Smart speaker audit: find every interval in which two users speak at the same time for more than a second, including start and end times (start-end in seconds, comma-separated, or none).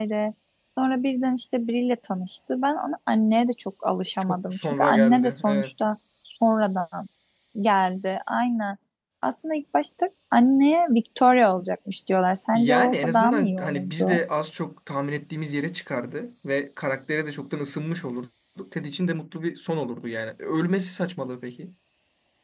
4.2-5.7, 12.5-14.2